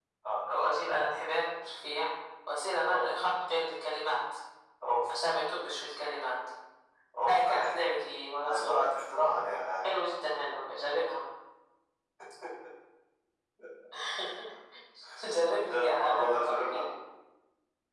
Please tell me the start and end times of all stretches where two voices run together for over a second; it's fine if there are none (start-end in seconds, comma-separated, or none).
15.5-16.9